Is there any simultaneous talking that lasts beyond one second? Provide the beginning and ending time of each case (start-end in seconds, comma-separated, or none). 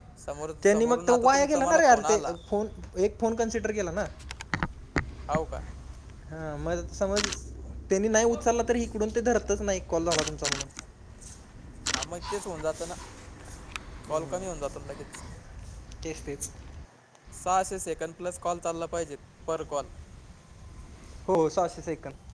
0.7-2.3